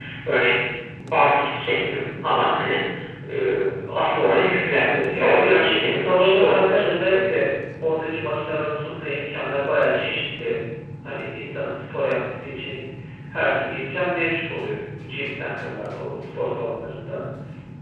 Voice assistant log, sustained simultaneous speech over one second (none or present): present